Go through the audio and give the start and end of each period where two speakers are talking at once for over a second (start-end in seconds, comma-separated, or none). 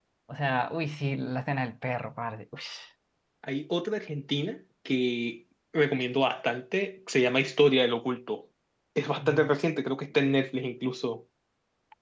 none